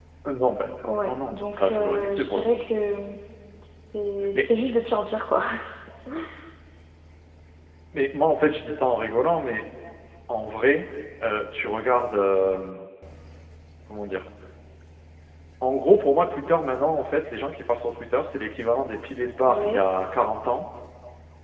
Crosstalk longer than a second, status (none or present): present